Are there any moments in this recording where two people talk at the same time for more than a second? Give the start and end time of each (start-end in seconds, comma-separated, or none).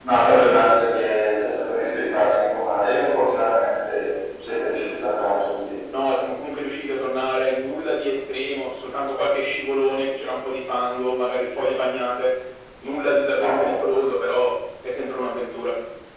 none